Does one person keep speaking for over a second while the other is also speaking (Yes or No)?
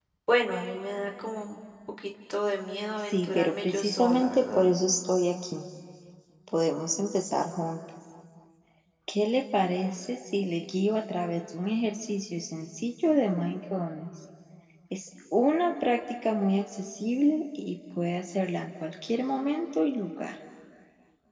Yes